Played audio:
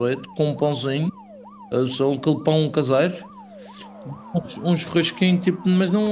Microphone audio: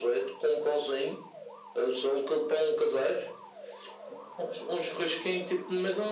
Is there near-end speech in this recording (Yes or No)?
No